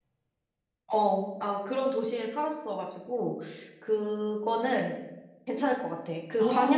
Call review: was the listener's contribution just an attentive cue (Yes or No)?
Yes